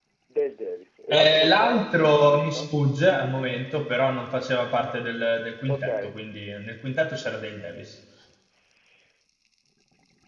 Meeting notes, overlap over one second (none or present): present